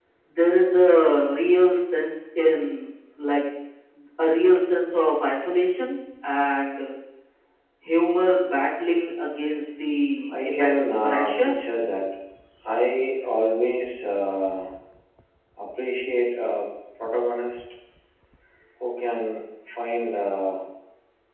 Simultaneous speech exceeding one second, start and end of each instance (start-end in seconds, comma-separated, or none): 10.3-11.5